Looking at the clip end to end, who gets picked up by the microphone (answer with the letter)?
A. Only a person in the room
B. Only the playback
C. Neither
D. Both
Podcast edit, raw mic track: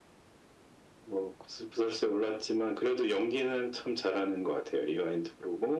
B